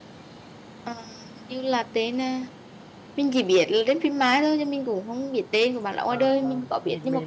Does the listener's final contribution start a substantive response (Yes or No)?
Yes